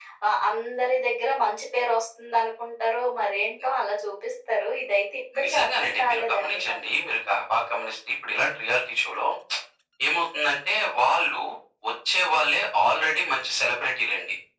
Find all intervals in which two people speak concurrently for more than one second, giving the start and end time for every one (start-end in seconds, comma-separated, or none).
5.4-6.8